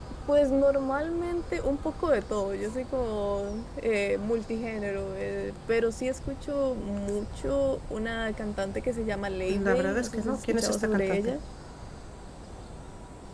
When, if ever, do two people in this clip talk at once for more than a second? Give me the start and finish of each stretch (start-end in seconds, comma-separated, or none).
9.5-11.3